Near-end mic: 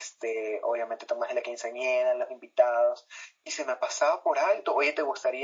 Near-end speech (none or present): none